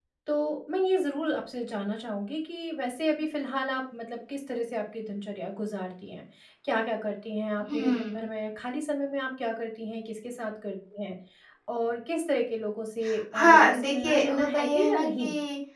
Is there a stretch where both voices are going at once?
Yes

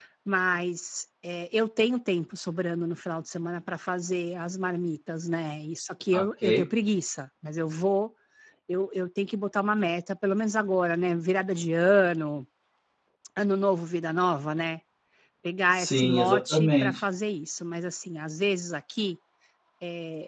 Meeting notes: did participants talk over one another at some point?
Yes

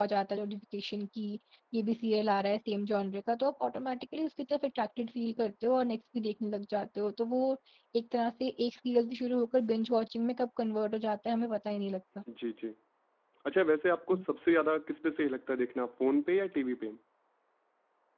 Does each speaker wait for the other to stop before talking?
Yes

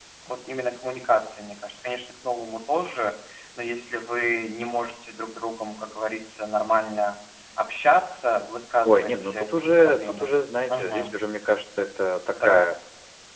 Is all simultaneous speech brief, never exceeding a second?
No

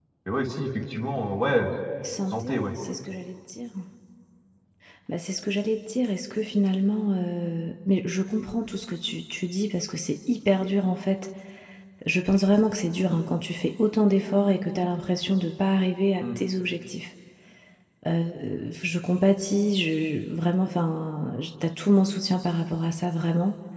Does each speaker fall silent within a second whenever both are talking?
Yes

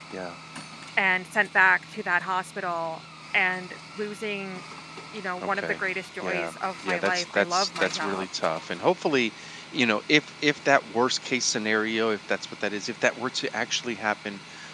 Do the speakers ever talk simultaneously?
Yes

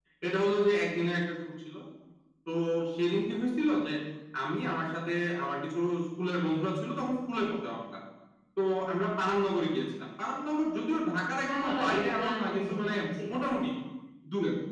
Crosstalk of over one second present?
Yes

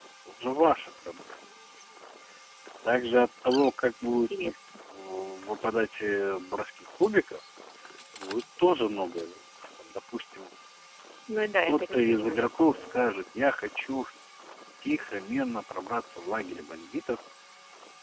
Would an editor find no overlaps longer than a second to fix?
No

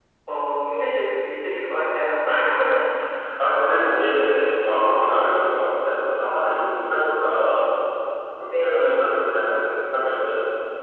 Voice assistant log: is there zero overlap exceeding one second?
Yes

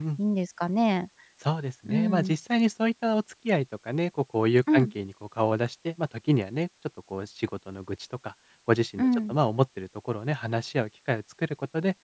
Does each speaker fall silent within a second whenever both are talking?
Yes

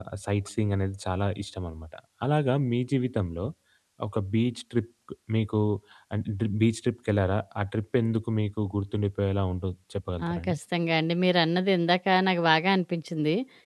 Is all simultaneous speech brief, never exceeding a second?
Yes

